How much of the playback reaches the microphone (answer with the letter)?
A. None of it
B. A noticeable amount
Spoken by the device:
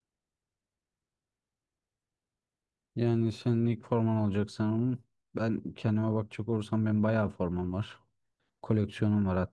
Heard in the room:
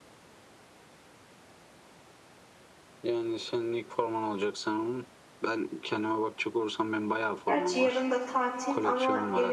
B